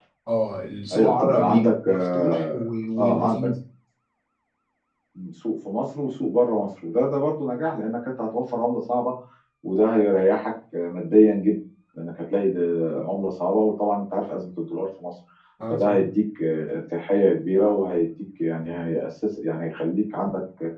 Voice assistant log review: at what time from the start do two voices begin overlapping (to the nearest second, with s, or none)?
1 s